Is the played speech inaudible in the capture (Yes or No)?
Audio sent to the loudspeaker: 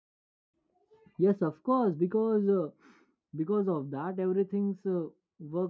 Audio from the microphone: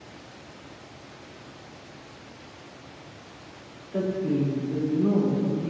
Yes